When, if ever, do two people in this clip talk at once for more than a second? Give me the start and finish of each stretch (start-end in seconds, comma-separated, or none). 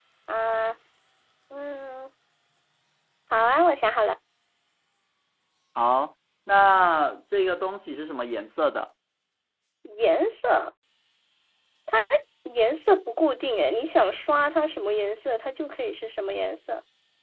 none